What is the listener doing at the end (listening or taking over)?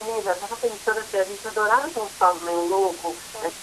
listening